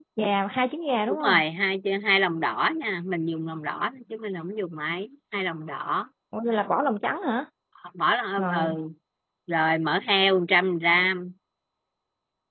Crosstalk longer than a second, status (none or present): none